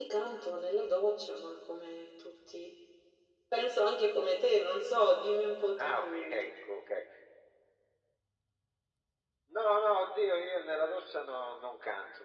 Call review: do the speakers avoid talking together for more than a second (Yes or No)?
Yes